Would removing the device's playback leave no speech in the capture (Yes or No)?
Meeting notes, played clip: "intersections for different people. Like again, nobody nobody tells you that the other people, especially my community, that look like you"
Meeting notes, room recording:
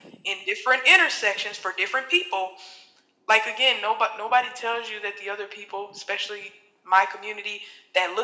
Yes